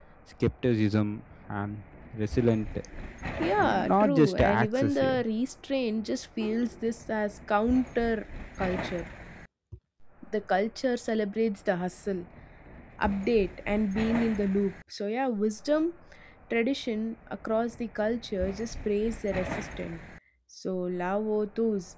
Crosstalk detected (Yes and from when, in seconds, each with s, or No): Yes, from 3.6 s